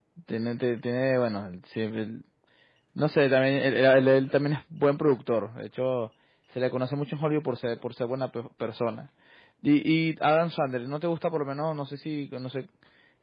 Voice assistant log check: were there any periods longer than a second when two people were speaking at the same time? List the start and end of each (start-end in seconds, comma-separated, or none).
none